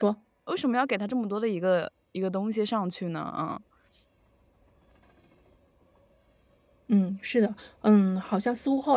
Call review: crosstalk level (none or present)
none